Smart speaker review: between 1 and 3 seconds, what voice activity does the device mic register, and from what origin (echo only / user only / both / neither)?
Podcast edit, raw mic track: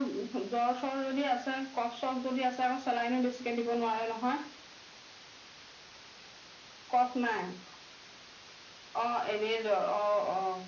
echo only